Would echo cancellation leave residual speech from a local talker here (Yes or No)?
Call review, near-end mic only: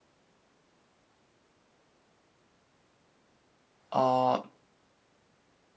Yes